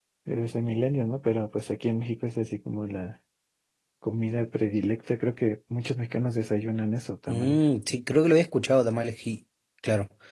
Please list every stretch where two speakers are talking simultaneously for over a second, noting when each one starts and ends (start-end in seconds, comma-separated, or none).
none